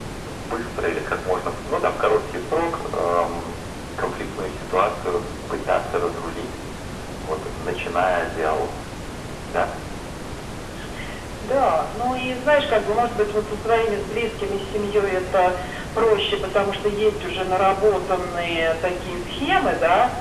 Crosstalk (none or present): none